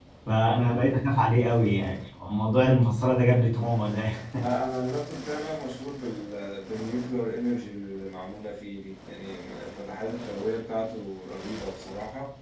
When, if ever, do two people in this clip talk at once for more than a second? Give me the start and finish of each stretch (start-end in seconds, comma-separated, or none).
none